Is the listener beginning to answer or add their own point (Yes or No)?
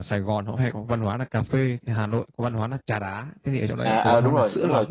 Yes